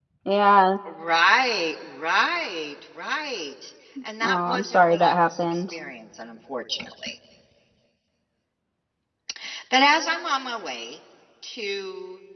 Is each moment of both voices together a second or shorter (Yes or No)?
No